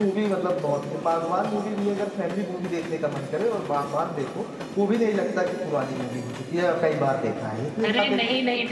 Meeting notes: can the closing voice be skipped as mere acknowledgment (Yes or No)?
No